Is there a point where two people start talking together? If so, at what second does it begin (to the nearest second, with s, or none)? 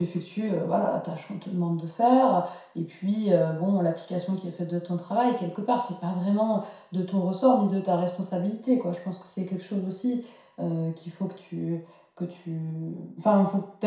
none